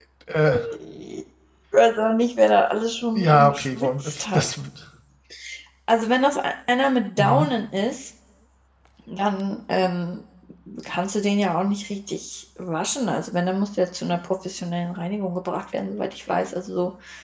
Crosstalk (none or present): present